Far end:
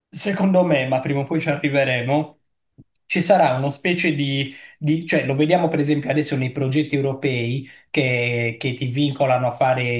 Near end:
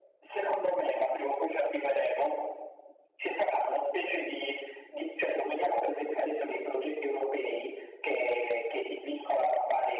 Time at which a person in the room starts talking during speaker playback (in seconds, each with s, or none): none